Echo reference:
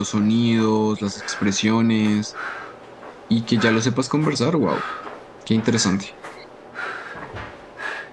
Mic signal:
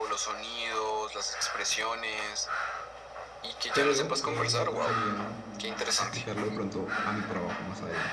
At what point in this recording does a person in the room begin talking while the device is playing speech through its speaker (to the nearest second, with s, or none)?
4 s